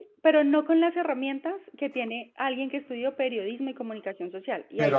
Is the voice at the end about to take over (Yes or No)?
Yes